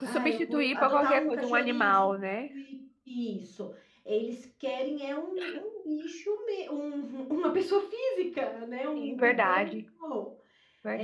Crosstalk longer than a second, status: present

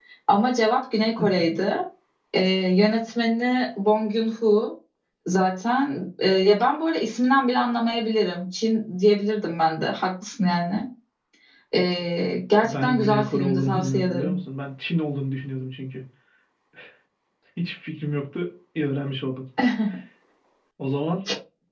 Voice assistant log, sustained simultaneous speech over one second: present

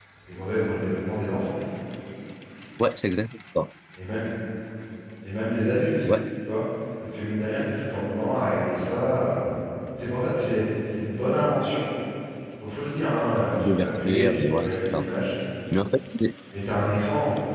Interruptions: present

